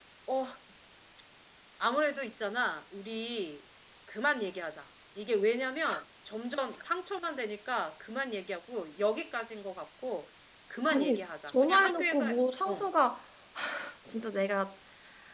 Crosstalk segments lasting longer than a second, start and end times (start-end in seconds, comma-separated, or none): 10.9-12.2